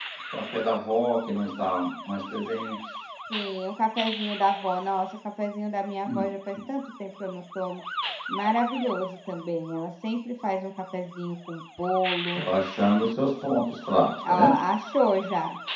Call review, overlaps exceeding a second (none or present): none